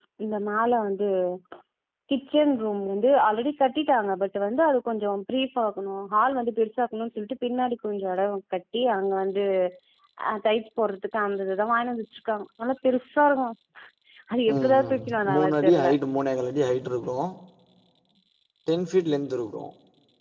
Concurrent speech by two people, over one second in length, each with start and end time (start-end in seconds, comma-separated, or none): 14.5-15.9